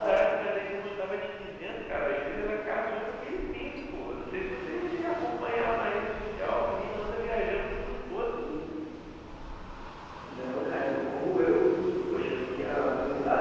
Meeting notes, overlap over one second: none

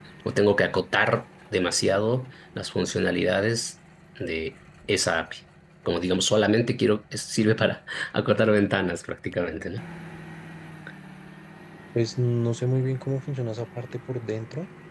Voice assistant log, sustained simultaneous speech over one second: none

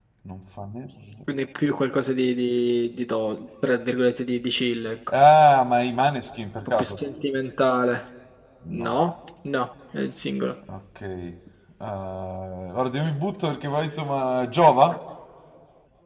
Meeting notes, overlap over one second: none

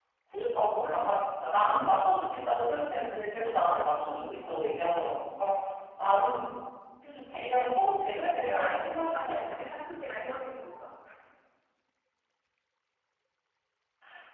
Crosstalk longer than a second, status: present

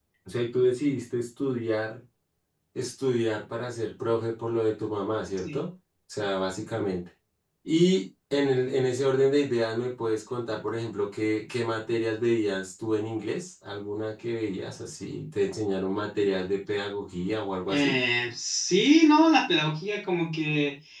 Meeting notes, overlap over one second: none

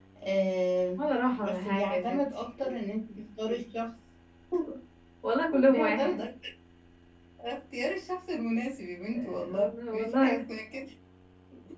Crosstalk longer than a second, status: present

